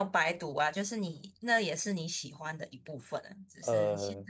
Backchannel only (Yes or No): Yes